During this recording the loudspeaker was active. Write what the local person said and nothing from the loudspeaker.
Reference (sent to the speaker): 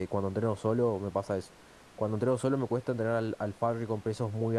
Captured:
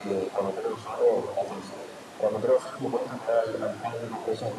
none

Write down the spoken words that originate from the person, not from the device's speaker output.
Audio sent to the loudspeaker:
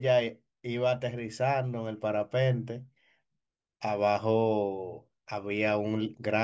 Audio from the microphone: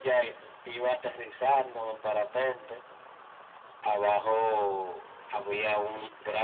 none

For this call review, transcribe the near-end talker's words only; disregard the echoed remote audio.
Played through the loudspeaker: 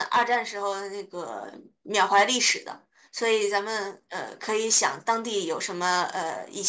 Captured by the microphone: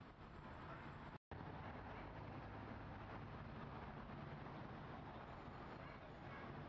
none

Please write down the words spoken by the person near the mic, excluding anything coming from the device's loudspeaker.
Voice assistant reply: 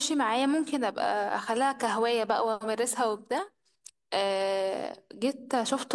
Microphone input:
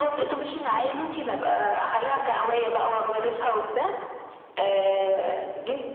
none

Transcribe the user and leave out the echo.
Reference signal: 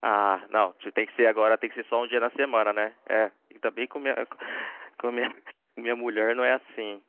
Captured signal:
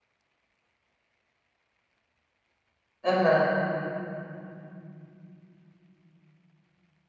Aham,

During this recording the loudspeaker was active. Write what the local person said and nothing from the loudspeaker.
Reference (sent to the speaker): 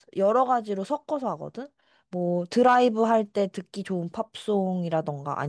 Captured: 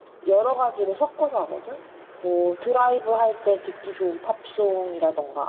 none

